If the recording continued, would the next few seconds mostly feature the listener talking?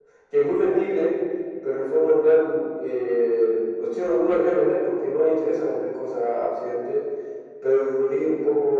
No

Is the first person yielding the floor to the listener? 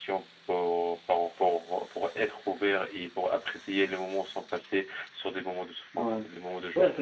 Yes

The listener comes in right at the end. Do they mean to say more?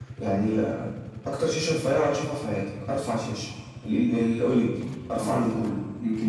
Yes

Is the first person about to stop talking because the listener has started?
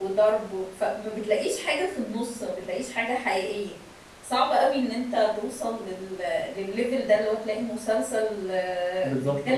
No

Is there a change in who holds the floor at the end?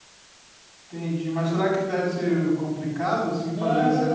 Yes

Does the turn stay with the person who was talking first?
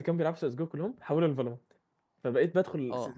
Yes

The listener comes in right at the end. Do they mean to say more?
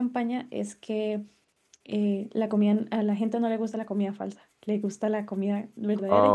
Yes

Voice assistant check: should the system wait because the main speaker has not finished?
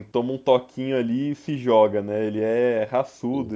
Yes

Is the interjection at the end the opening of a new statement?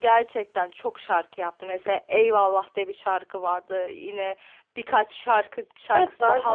Yes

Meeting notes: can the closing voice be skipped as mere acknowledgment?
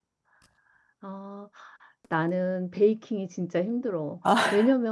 Yes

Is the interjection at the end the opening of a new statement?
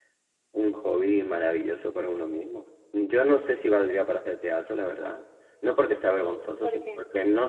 No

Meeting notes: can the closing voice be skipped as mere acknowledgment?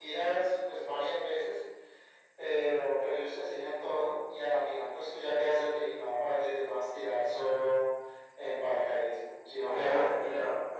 No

